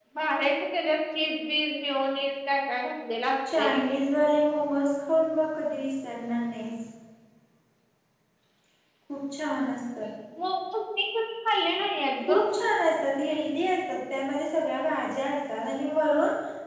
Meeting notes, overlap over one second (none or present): none